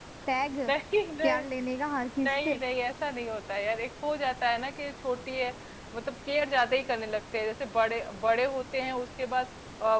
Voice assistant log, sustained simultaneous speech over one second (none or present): none